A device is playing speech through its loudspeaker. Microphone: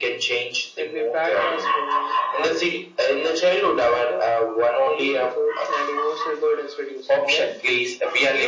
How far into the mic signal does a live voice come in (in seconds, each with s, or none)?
none